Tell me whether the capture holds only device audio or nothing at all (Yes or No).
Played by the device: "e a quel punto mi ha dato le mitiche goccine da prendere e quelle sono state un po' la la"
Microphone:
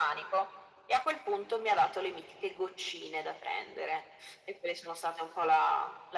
Yes